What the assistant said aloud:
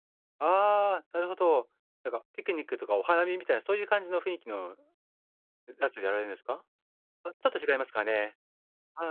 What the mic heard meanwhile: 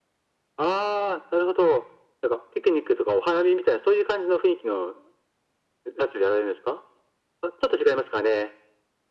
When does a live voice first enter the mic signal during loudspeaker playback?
none

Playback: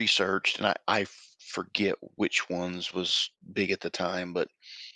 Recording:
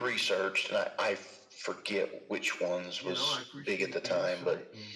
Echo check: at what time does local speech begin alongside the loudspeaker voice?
3.0 s

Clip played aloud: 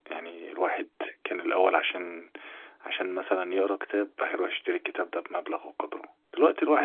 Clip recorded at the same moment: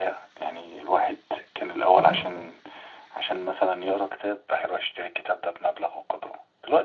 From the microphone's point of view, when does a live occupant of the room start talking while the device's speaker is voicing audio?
2.0 s

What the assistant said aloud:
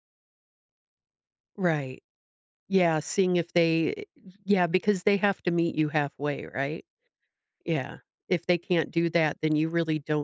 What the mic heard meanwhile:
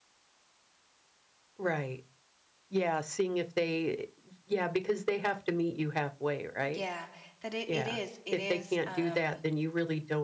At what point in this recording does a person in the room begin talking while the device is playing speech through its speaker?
6.7 s

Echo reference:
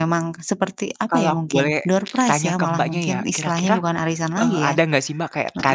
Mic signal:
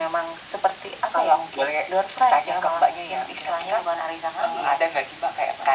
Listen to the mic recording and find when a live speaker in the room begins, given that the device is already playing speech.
none

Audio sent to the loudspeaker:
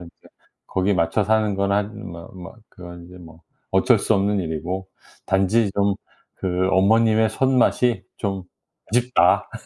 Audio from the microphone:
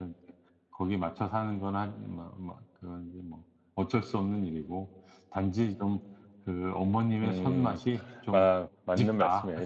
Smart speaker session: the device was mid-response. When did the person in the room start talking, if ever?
7.2 s

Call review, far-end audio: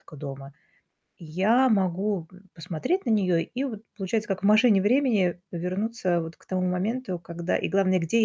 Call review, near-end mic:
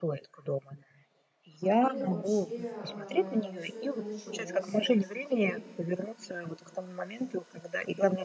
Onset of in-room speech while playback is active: 1.6 s

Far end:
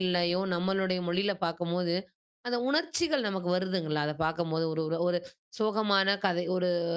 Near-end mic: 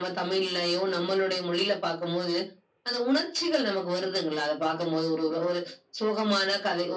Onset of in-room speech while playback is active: none

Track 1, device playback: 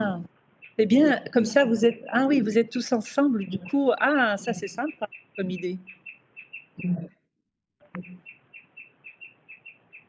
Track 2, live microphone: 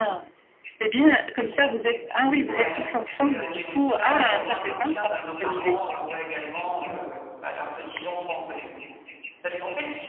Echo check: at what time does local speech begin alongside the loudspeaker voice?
2.5 s

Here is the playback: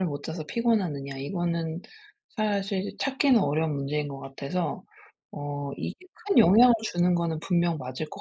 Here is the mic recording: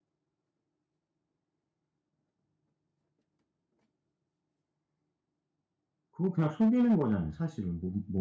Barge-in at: 6.1 s

